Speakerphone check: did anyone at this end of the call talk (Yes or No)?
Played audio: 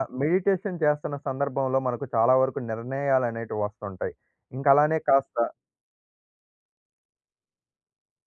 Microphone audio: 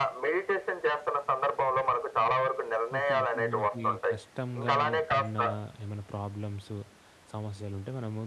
Yes